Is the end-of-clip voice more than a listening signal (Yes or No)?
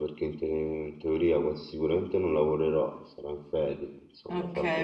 Yes